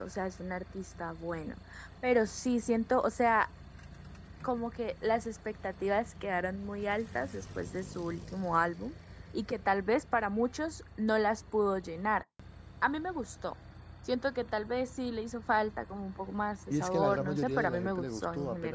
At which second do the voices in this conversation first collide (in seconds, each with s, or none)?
16.7 s